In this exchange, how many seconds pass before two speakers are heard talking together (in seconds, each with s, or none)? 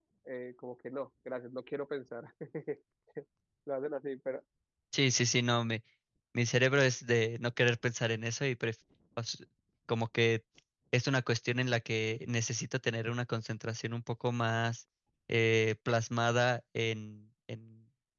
none